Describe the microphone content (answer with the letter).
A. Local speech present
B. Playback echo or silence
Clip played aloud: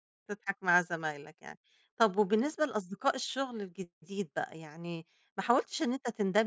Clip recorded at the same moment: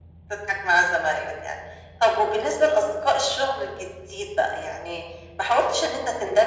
B